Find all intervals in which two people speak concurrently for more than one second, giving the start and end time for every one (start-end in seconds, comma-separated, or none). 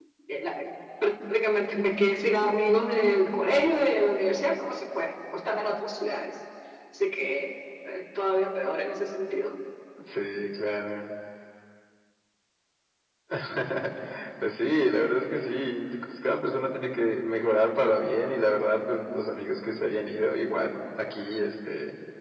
none